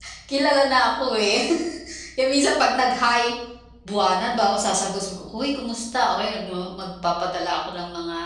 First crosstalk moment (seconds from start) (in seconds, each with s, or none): none